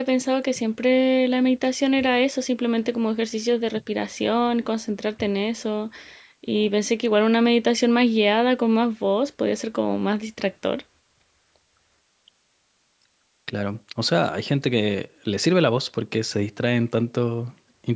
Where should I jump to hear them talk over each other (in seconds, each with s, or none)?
none